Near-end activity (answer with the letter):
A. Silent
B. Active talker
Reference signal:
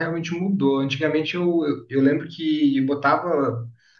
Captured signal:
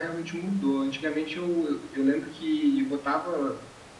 A